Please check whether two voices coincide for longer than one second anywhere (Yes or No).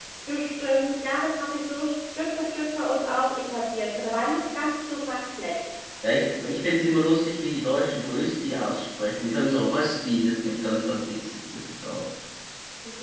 No